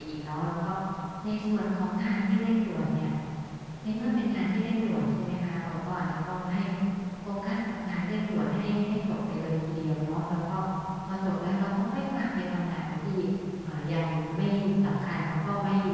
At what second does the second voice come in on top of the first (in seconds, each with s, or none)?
none